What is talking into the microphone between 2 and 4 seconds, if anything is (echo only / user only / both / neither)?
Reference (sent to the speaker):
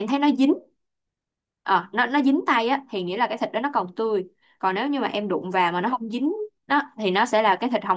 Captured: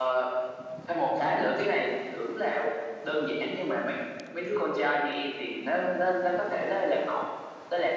user only